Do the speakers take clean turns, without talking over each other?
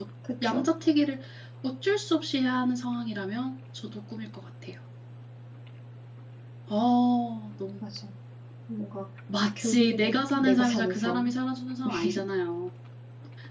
No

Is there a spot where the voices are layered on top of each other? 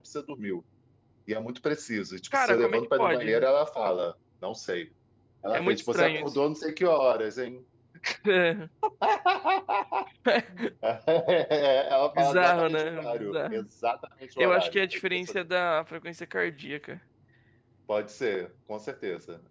Yes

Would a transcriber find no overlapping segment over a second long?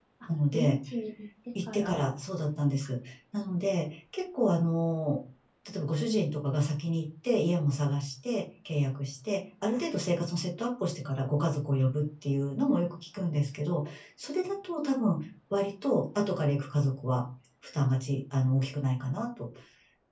Yes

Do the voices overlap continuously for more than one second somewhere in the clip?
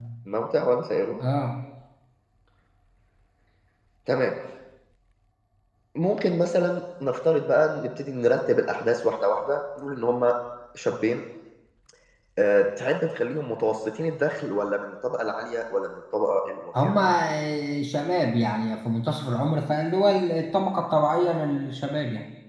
No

